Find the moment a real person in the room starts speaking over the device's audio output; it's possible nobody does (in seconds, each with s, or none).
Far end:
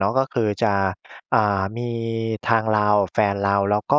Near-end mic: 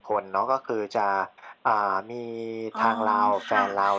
2.7 s